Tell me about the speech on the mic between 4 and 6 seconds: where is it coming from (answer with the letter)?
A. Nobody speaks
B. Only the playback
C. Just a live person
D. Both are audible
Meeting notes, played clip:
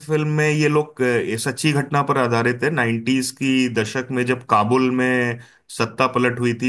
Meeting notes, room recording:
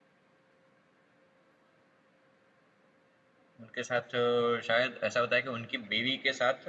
C